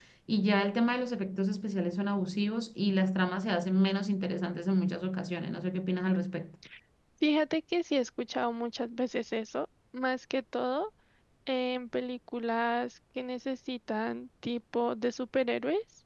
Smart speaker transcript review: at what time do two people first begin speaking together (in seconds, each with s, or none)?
none